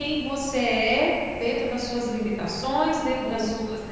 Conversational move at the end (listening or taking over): listening